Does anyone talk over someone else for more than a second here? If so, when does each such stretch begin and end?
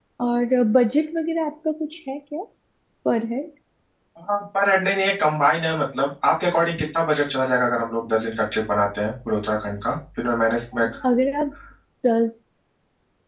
none

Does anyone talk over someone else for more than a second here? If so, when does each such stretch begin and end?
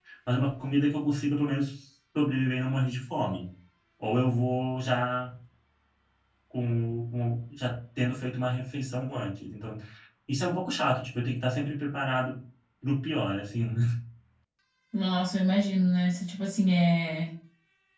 none

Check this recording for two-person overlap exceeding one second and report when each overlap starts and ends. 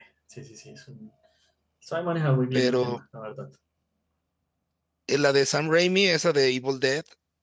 none

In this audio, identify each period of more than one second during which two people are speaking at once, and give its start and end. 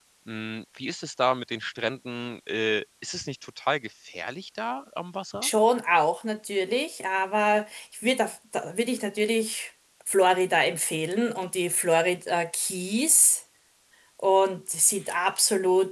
none

